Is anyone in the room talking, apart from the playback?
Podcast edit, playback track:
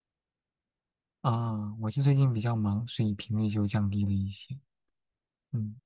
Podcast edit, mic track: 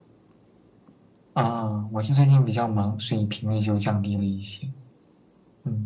No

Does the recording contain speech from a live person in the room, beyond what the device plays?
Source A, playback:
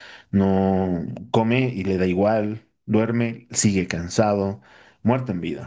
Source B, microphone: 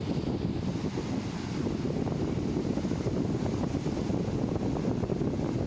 No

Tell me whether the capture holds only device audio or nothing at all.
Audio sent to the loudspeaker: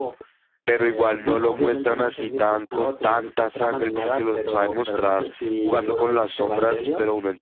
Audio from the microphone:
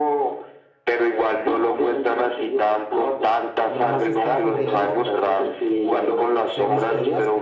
No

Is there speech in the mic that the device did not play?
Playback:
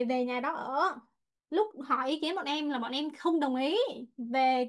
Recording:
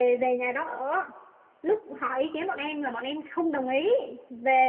No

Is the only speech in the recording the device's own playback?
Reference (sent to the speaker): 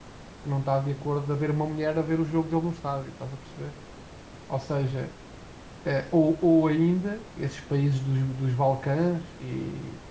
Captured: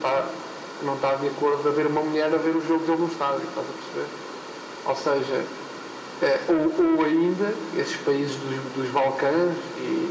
Yes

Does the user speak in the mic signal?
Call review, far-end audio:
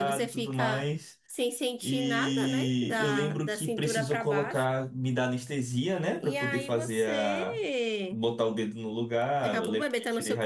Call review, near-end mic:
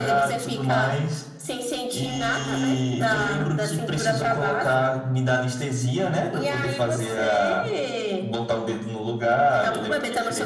No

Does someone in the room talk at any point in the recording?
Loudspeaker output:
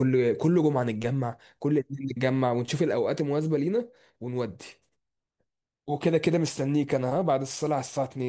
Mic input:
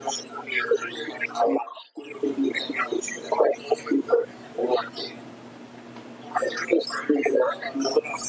No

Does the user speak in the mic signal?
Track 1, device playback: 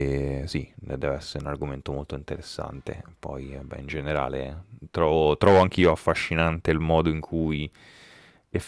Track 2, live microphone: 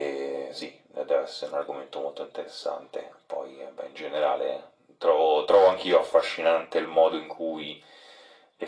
No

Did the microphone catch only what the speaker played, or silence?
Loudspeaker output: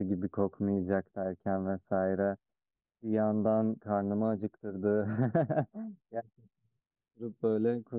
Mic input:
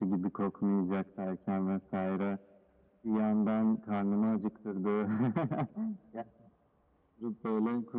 Yes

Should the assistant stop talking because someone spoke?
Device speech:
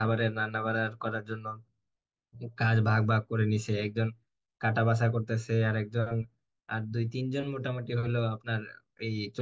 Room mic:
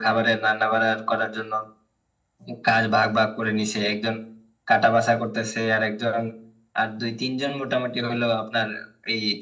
No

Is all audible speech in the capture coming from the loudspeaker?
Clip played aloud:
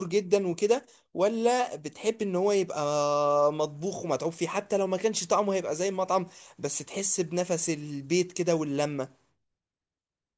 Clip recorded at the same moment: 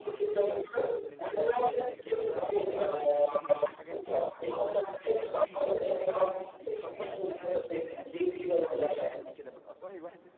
No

